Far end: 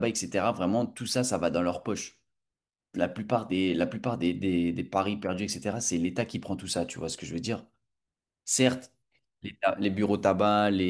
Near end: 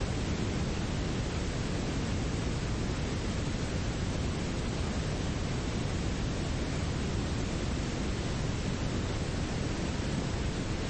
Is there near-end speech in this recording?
No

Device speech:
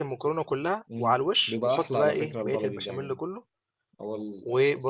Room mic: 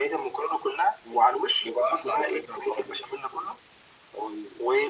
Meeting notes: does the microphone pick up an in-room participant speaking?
No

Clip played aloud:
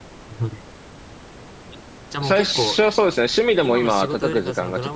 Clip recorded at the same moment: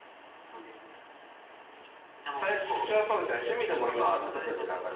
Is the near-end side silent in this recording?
Yes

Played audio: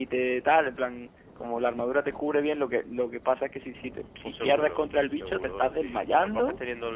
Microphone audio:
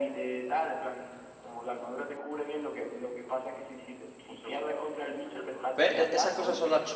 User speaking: Yes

